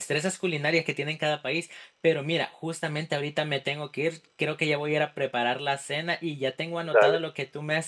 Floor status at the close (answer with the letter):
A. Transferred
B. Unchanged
B